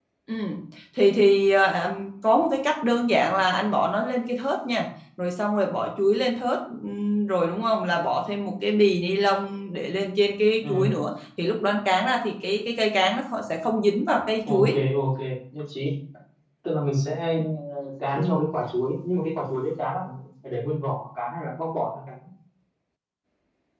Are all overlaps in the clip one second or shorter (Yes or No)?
Yes